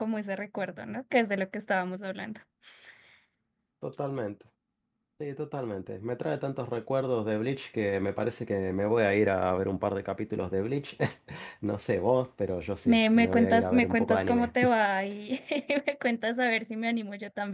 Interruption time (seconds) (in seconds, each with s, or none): 12.8 s